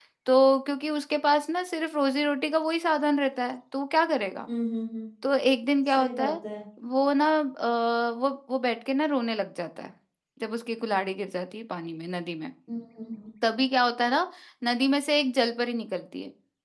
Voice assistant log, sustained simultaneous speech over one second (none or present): none